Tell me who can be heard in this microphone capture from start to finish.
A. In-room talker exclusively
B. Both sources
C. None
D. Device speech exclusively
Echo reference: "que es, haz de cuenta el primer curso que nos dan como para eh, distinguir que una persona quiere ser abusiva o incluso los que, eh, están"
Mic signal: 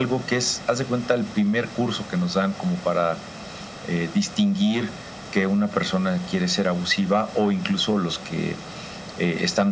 D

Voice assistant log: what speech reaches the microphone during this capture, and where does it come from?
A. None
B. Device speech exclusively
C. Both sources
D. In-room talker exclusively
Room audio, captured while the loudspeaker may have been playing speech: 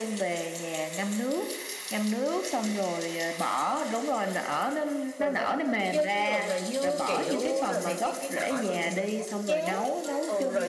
C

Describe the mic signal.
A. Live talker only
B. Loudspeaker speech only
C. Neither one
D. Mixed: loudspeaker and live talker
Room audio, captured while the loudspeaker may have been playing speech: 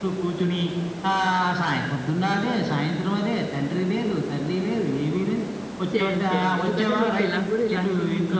D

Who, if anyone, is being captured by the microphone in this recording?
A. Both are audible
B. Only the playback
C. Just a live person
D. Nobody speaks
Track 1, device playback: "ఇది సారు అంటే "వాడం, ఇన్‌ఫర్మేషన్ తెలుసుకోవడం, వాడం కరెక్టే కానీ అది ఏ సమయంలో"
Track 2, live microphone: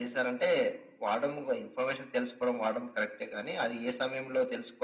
B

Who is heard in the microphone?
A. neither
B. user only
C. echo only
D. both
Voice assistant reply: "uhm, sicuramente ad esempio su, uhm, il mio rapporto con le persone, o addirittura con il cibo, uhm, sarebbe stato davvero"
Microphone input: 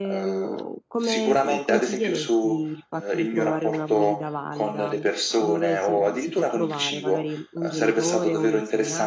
D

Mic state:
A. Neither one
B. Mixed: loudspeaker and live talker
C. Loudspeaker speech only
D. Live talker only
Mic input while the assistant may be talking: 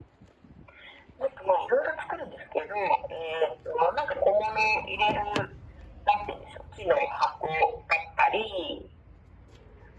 C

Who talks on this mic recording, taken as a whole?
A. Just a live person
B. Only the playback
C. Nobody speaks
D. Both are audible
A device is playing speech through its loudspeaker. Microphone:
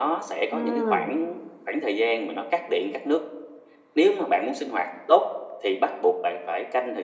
D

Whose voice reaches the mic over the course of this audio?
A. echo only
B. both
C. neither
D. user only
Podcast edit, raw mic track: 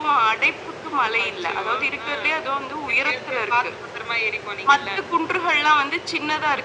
A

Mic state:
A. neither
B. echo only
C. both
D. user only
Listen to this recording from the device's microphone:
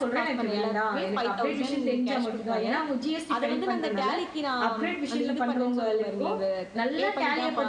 C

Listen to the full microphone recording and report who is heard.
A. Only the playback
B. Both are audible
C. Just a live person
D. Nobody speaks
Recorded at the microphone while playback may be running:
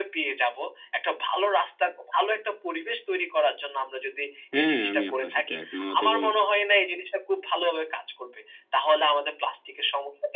B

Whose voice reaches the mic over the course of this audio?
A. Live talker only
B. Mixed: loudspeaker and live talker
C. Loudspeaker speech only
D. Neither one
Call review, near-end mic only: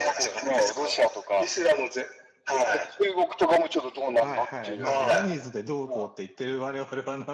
B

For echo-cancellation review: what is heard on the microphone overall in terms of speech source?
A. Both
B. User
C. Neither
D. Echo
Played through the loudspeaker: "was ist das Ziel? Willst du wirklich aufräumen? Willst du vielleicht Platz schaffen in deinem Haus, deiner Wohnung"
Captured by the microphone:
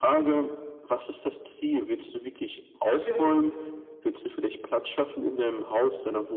A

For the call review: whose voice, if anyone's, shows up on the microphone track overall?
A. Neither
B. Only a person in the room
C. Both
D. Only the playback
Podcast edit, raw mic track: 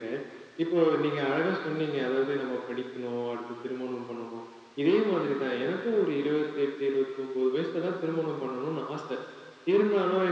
D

